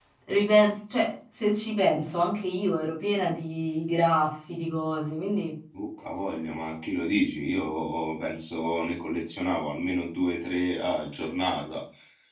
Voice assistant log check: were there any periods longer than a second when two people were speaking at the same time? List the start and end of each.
none

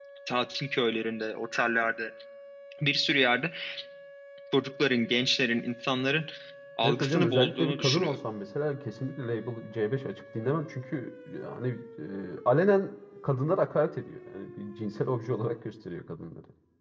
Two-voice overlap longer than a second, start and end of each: 6.8-8.2

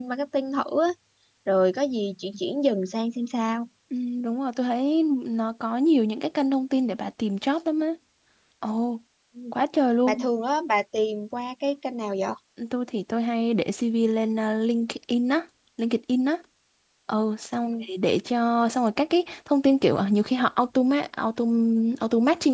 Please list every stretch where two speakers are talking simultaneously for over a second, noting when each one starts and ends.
none

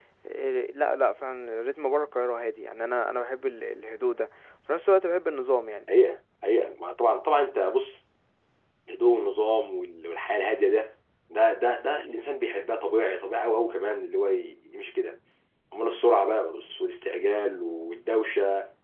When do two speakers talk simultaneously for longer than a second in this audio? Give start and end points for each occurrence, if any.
none

